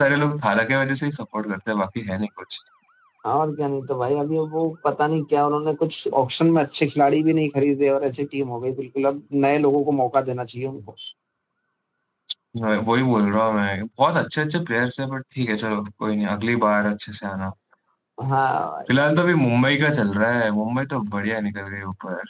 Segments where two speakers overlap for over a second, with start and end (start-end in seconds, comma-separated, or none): none